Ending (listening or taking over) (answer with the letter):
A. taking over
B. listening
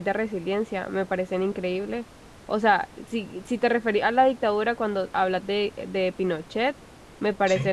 B